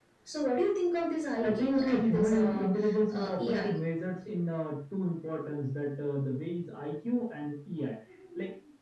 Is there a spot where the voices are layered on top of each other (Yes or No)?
Yes